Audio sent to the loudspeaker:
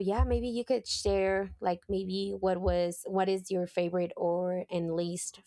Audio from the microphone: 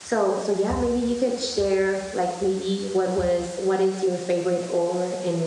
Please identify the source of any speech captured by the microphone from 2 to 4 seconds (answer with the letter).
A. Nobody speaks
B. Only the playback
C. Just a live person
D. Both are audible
B